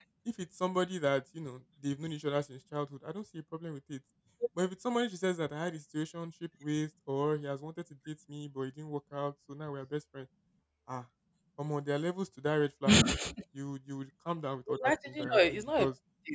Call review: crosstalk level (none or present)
present